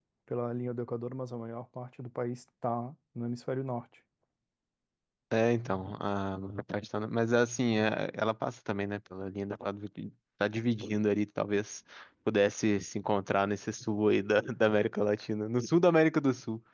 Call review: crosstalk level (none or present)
none